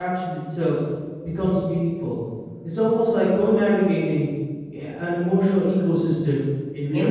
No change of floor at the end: No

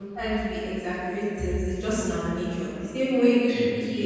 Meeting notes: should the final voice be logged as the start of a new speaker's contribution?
No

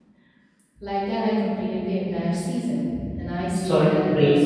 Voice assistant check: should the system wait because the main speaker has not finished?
No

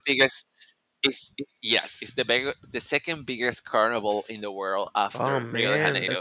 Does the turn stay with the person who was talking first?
No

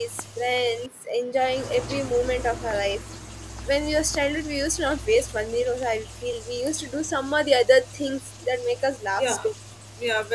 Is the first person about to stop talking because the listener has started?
Yes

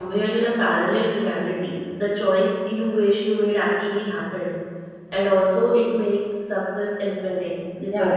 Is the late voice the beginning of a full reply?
Yes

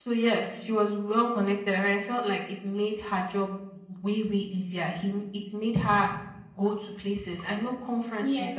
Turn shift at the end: Yes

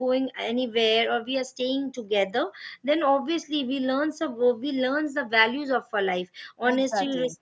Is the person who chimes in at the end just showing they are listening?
Yes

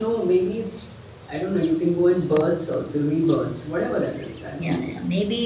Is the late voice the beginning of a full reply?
Yes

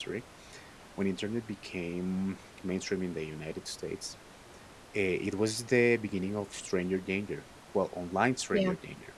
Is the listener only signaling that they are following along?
Yes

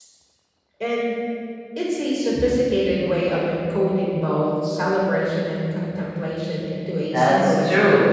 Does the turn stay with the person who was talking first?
No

